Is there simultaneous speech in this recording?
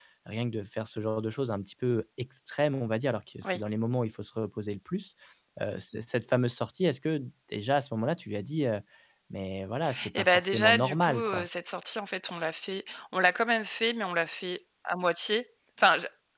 Yes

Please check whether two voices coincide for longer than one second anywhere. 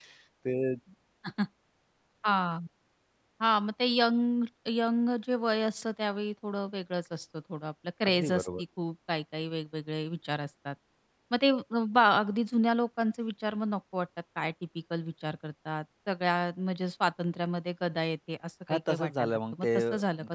Yes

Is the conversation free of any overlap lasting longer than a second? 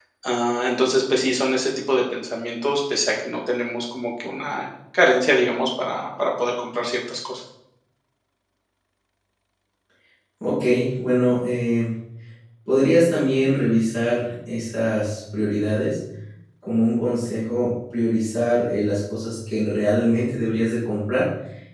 Yes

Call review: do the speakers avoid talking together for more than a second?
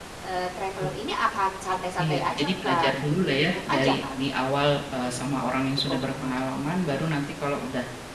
No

